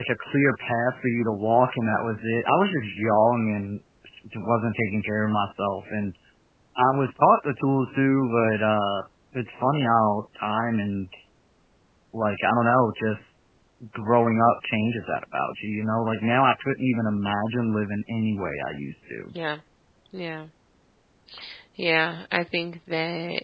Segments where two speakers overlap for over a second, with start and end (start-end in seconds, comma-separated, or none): none